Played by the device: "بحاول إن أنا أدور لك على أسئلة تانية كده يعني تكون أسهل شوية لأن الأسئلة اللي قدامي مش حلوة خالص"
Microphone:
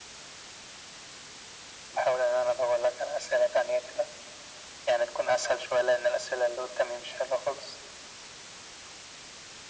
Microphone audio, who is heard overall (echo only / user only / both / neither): echo only